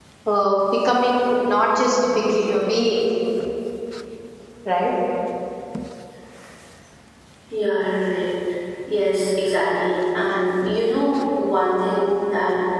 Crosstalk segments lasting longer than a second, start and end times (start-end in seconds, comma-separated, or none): none